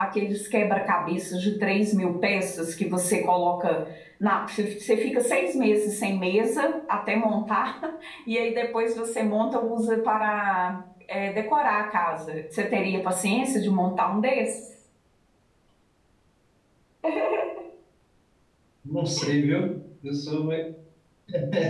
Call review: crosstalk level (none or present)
none